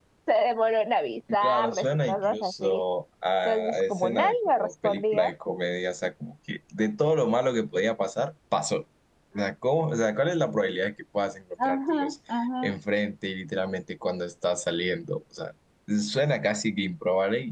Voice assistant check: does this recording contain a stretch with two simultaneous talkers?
Yes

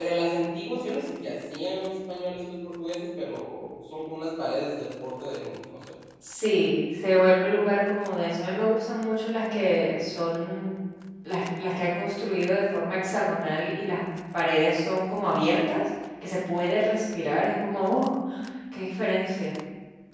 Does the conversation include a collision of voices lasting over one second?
No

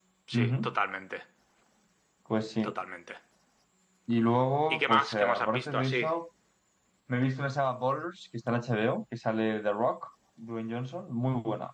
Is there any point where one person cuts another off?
Yes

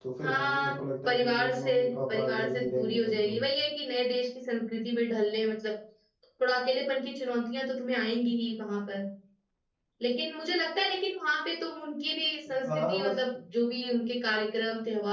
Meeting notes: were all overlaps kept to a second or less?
No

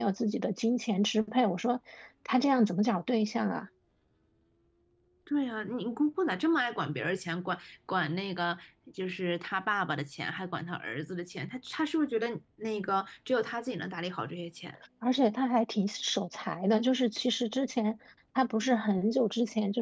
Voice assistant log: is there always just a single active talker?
Yes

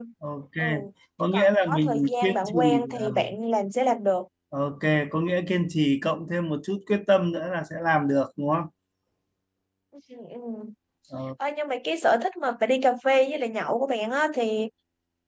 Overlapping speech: Yes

